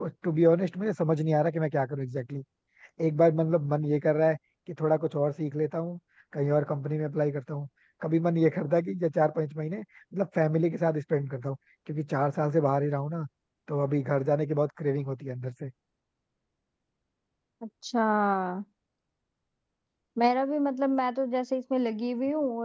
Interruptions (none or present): none